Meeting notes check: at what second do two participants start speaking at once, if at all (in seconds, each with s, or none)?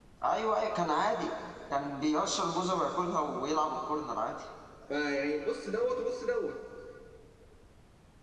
none